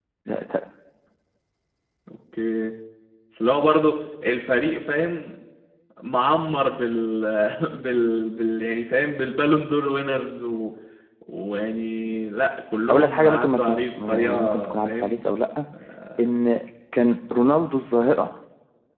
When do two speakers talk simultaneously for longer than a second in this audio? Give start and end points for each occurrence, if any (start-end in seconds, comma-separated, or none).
12.9-15.2